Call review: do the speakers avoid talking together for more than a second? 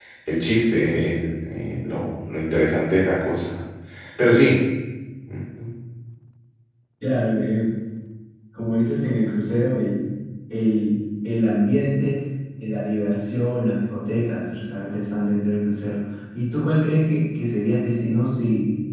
Yes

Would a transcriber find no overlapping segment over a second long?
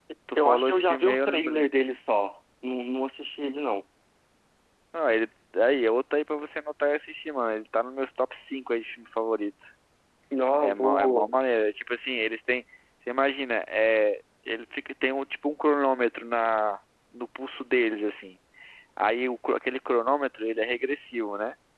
No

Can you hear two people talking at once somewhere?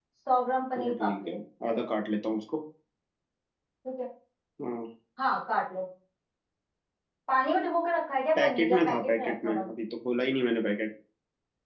Yes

